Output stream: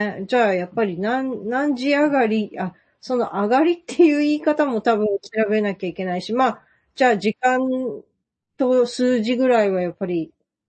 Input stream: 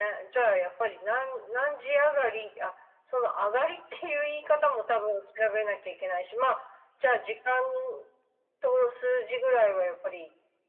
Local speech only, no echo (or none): none